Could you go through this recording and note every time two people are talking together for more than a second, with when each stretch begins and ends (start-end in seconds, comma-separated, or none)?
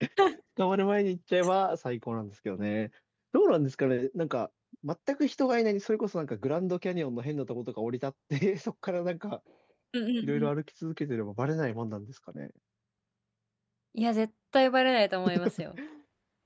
none